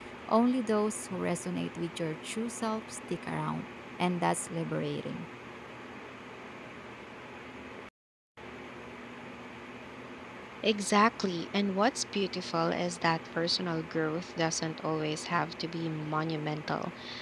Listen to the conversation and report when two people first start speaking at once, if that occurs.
none

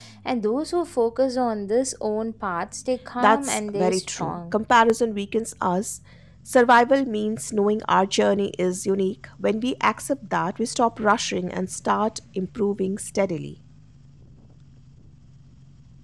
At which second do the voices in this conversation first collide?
3.2 s

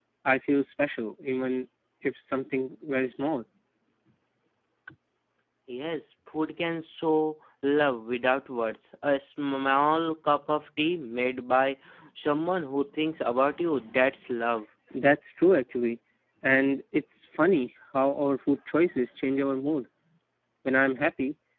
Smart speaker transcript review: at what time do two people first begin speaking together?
none

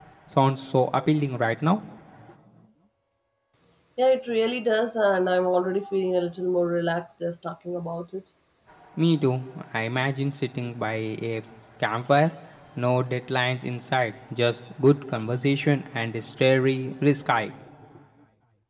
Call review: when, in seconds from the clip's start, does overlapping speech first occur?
none

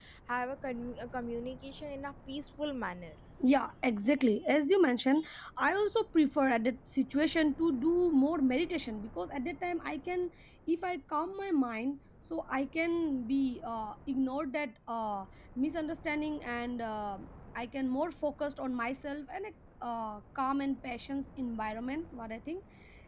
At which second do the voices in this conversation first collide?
none

